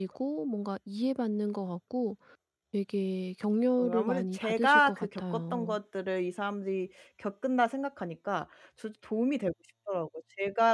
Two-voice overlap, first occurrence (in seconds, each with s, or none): 3.8 s